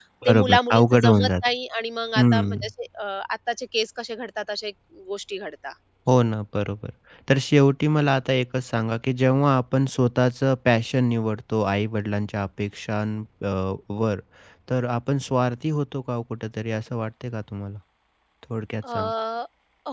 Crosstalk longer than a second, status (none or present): present